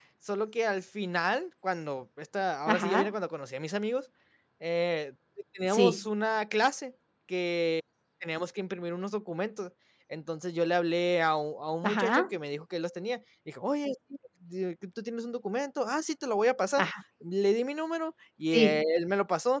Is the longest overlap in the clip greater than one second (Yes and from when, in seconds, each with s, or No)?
No